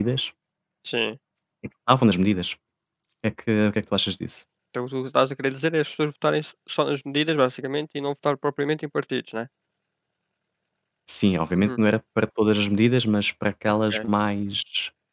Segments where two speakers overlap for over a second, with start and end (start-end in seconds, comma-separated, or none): none